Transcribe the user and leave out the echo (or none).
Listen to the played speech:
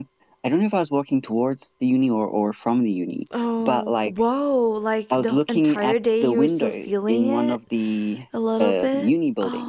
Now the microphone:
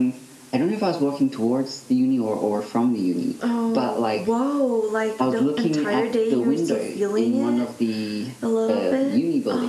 none